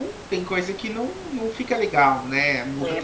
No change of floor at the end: No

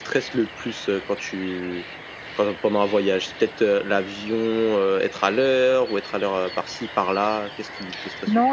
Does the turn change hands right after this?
Yes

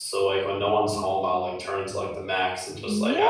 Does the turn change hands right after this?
Yes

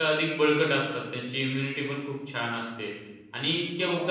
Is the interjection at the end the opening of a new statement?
No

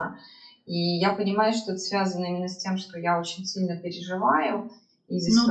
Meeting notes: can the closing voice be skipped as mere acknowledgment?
Yes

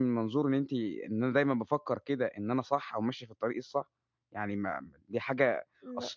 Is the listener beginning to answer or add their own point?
No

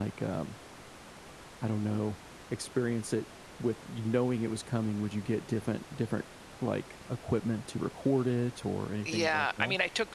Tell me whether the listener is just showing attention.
No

